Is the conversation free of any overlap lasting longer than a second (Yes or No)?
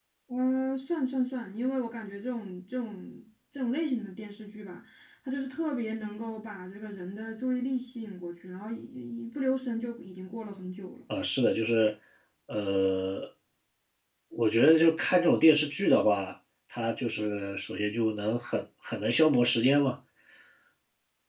Yes